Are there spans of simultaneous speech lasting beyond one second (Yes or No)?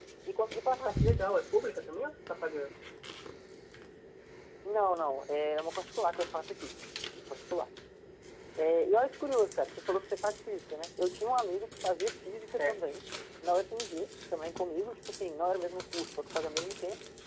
No